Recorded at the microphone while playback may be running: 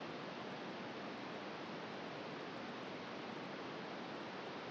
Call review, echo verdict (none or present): none